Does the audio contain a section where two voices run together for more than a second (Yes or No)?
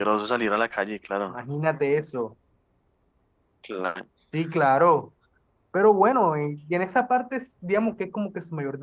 No